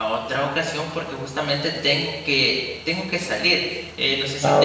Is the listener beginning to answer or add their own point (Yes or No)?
No